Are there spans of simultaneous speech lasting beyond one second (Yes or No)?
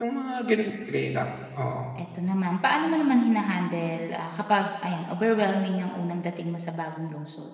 No